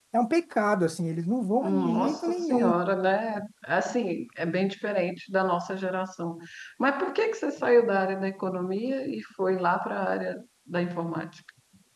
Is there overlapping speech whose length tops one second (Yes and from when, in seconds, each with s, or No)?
Yes, from 1.6 s